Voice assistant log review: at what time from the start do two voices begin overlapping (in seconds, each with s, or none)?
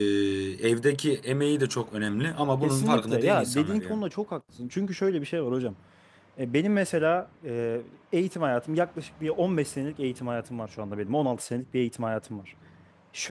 2.6 s